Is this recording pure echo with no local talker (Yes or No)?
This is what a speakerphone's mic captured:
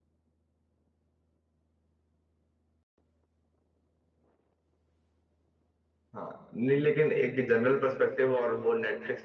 No